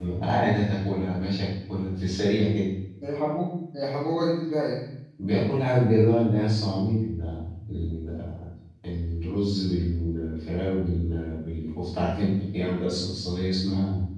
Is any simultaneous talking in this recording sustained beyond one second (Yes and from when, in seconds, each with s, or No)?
No